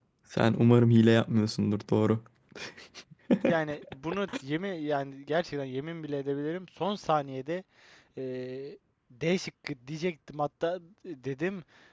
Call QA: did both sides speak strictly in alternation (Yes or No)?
Yes